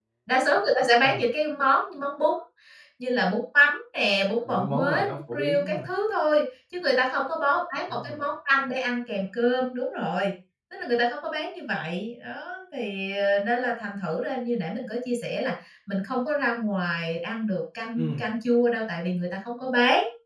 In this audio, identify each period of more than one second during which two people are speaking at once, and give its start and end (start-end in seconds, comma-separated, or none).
4.5-5.8